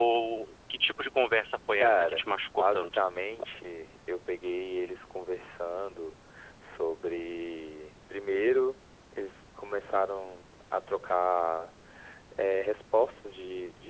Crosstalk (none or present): present